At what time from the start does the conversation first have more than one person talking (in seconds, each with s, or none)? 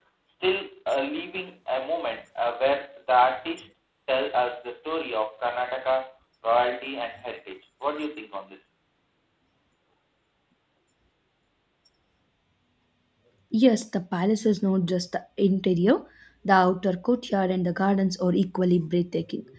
none